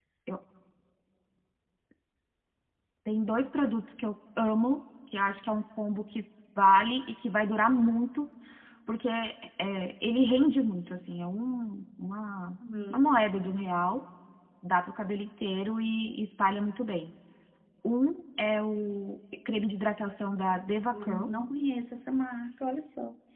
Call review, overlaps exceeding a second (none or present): none